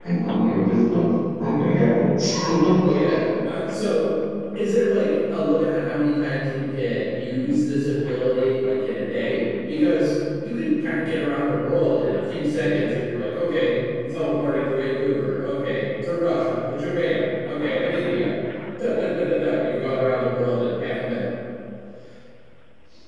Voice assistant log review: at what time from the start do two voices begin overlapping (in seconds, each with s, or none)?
none